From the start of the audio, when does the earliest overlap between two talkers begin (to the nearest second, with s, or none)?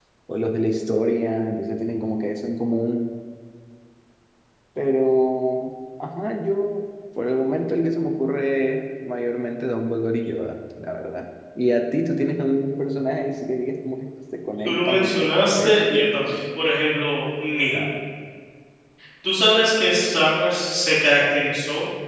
15 s